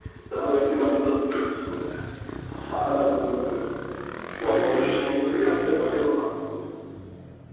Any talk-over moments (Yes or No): Yes